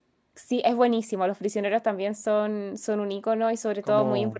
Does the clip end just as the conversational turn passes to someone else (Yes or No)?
No